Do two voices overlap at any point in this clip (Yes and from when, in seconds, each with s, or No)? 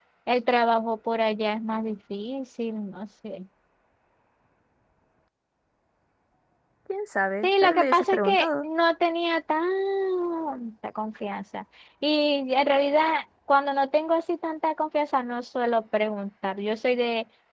Yes, from 7.4 s